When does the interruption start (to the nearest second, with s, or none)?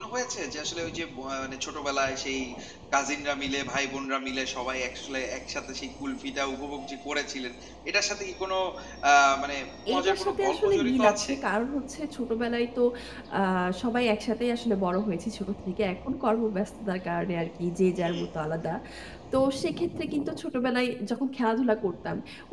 10 s